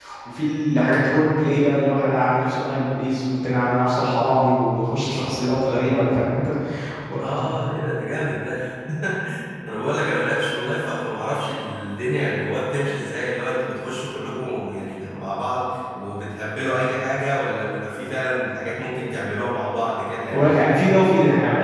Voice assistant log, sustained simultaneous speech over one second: none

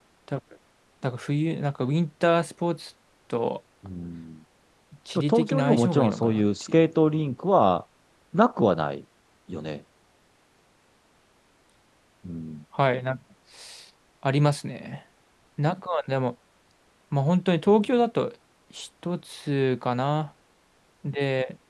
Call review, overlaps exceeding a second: present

